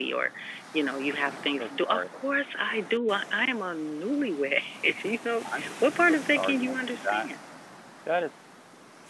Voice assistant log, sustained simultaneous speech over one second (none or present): present